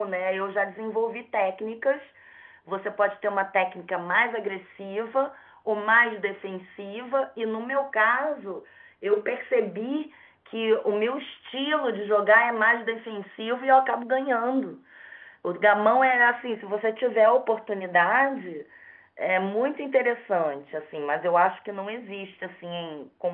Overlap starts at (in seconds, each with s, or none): none